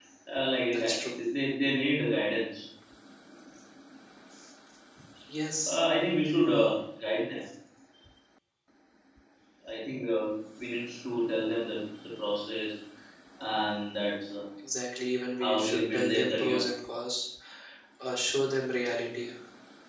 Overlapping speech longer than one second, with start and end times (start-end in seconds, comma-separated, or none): 15.4-16.6